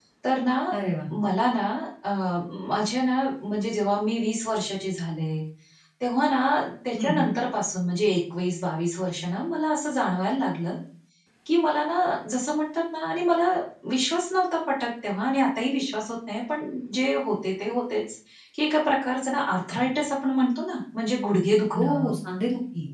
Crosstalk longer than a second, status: none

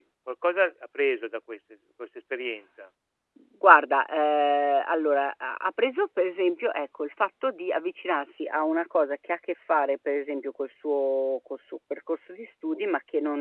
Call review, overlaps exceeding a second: none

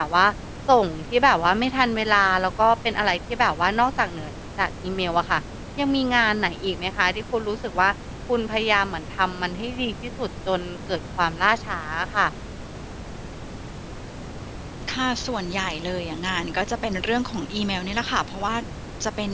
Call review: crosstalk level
none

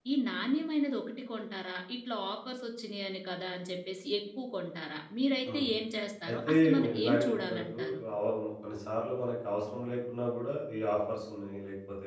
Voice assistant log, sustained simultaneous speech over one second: present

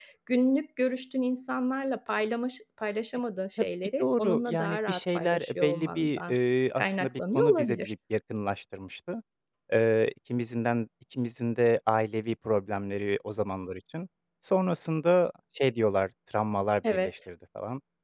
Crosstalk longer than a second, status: present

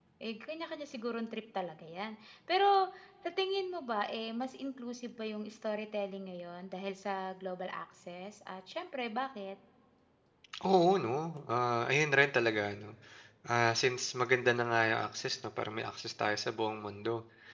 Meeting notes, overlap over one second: none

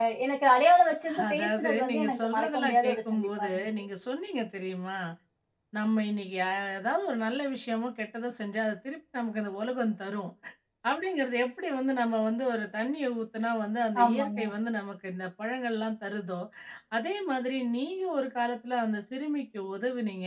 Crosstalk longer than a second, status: present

